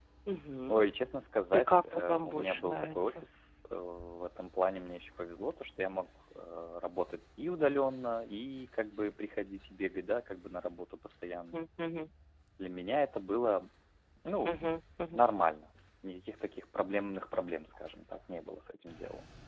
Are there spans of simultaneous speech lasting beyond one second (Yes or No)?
Yes